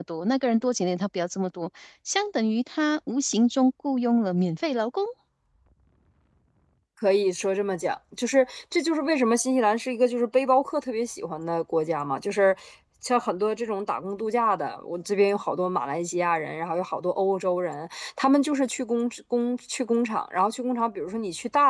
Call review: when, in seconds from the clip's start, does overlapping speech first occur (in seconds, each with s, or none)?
none